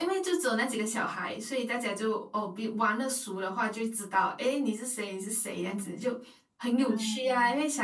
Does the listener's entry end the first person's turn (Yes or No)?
No